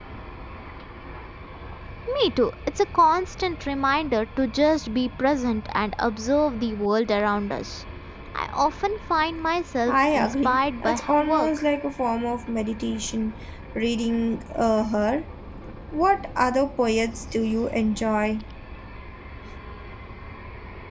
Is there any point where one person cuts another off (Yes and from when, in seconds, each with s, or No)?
Yes, from 9.9 s